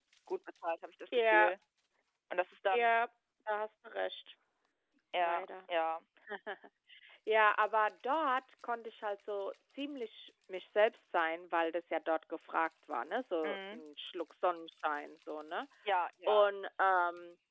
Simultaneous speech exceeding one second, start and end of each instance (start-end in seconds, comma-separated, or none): none